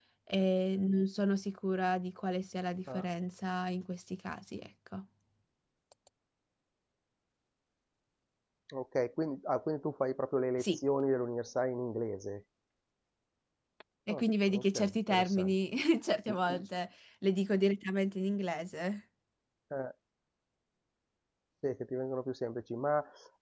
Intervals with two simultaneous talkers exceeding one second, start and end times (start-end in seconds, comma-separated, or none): 14.1-15.5